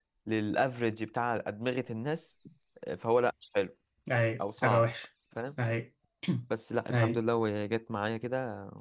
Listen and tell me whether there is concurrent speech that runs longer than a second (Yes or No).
No